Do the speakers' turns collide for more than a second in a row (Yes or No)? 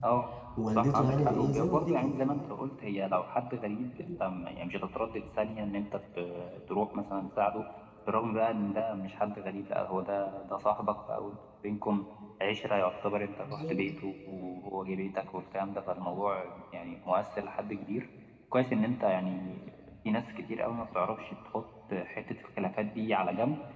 Yes